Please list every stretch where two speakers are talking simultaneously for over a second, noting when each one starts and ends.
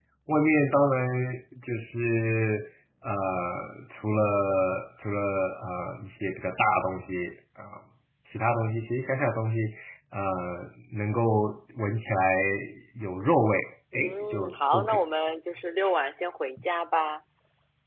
13.9-15.2

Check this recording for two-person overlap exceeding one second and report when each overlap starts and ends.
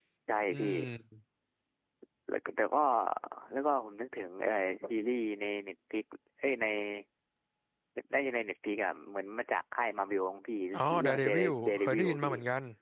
11.0-12.3

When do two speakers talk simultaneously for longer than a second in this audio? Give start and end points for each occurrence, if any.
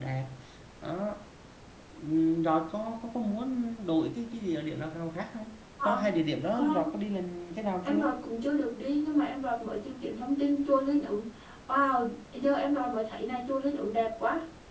none

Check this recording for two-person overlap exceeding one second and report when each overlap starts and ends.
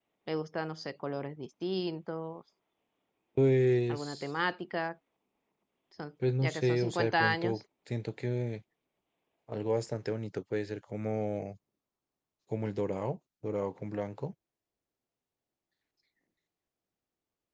6.4-7.6

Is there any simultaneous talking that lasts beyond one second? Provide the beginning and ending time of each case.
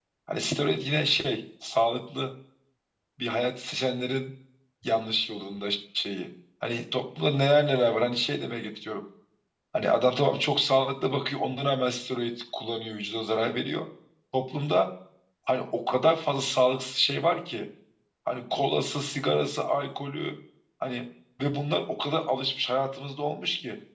none

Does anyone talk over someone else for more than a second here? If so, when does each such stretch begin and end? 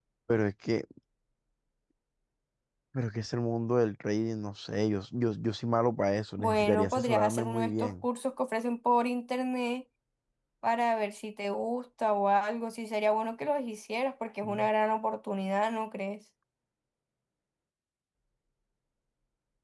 6.4-8.0

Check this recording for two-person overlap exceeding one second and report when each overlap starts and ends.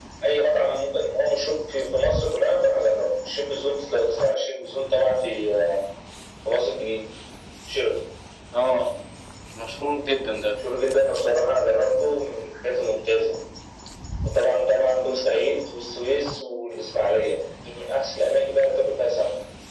none

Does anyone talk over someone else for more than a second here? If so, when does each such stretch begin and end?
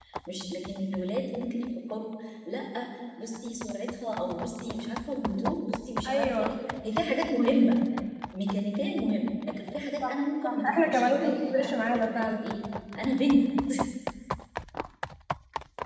10.0-12.3

